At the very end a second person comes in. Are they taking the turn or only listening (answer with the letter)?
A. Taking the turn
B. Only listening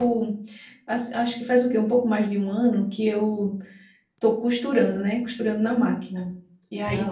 B